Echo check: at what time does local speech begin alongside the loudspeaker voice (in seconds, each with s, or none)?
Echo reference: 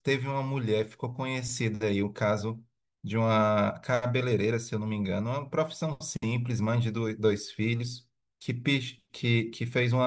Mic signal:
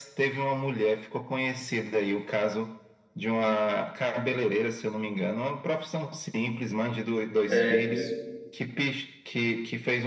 7.5 s